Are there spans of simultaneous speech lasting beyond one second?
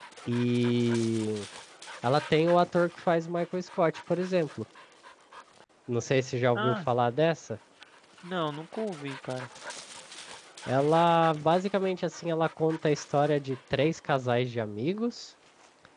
No

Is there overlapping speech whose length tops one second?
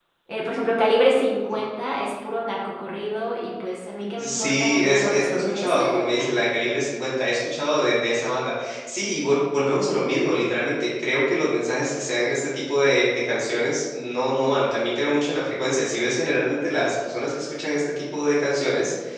Yes, from 4.2 s

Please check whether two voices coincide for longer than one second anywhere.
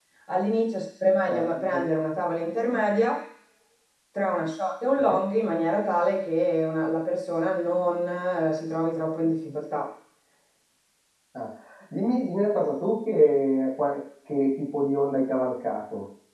No

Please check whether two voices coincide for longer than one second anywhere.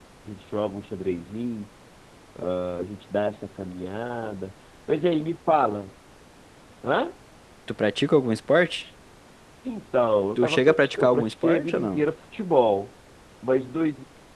Yes, from 10.4 s

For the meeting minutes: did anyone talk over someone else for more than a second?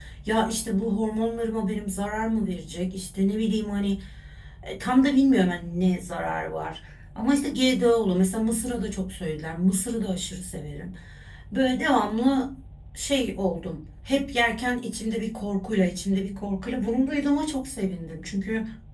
No

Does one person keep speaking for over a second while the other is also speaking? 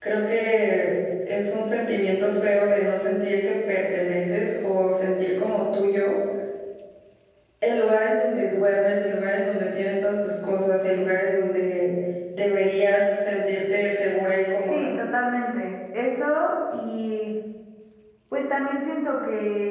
No

